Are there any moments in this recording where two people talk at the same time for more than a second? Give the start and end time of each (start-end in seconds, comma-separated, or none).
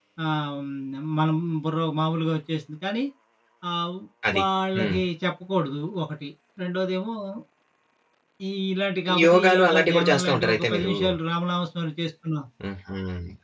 9.2-10.9